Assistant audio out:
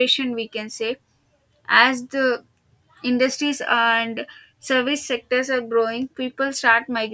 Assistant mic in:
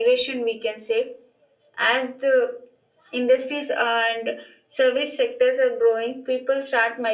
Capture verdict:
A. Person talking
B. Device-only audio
B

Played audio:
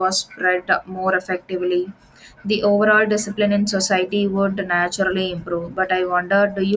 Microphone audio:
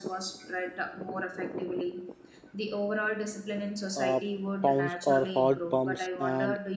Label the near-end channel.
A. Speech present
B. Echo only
A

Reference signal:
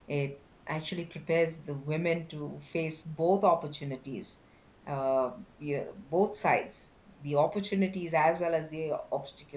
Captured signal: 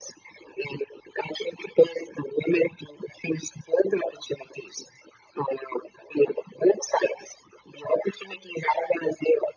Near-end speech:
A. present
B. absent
B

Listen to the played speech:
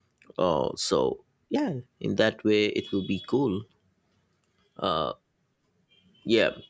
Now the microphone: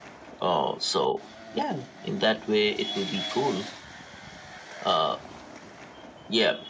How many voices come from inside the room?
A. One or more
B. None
B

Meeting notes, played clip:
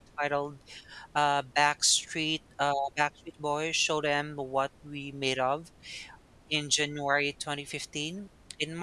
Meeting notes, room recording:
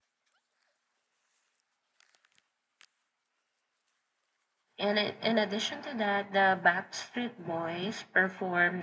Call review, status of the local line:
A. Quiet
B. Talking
B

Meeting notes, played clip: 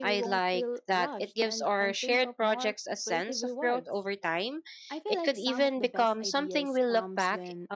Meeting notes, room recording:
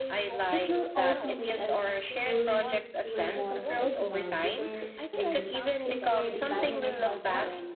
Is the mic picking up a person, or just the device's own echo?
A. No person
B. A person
B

